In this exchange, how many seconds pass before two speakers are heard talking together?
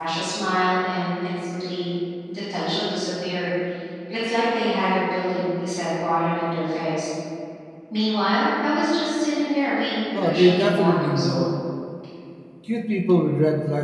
10.1 s

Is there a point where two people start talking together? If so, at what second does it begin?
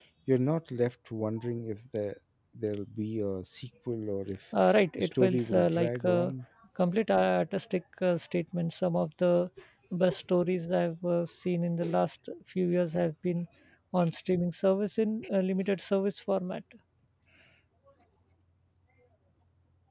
5.0 s

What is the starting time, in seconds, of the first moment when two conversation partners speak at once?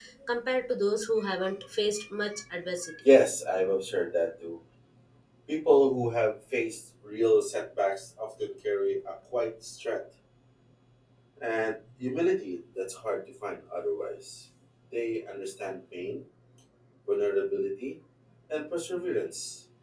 none

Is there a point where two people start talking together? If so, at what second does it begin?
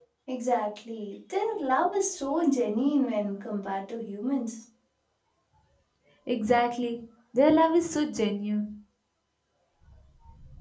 none

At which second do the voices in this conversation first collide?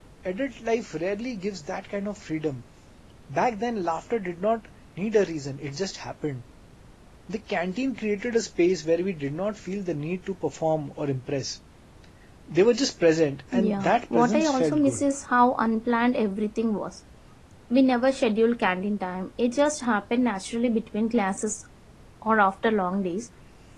13.5 s

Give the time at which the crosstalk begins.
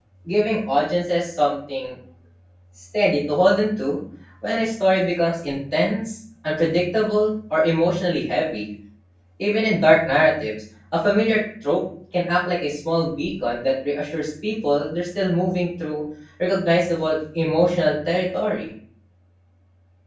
none

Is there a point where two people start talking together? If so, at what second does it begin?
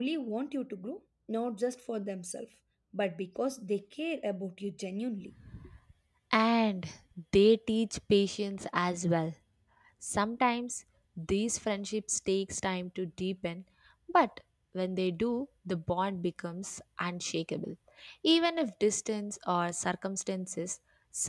none

